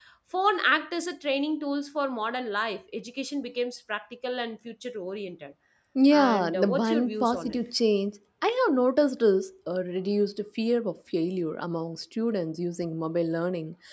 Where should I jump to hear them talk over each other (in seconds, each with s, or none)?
6.1 s